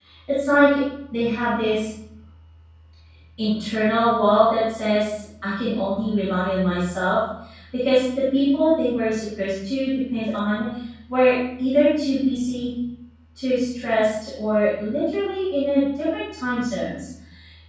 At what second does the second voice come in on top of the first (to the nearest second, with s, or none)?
none